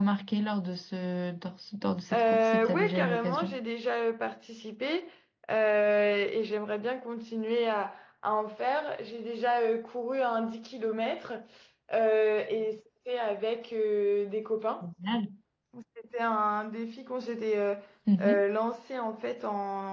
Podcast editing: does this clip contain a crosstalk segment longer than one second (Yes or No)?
Yes